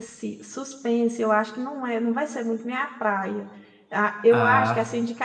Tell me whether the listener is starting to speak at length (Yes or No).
No